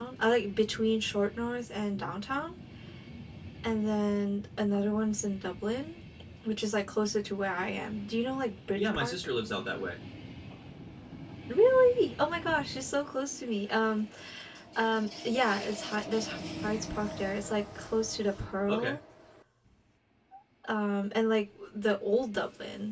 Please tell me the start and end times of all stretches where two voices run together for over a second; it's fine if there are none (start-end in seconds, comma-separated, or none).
none